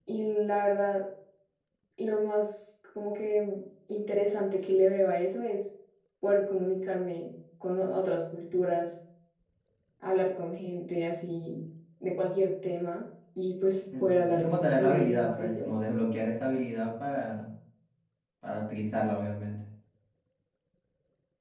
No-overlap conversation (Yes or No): No